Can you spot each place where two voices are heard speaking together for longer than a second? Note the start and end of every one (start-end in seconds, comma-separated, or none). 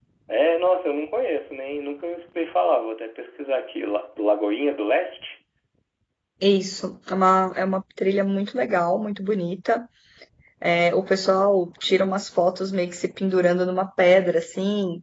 none